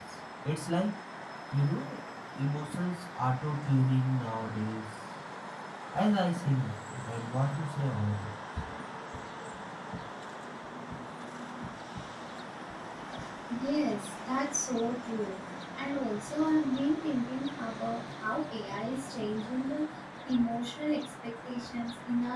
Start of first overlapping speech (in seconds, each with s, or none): none